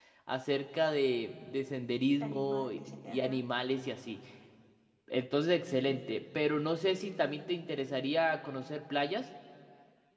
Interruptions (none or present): present